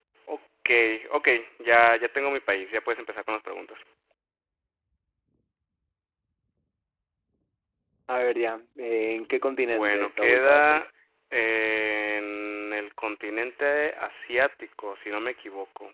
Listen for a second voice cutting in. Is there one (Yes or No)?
Yes